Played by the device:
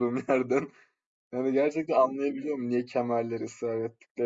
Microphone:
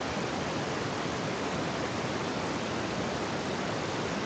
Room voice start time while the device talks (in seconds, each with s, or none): none